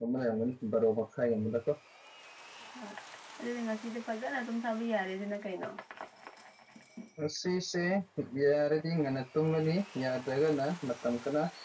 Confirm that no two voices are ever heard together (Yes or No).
Yes